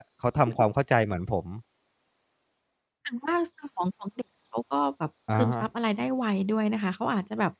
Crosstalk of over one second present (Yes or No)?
No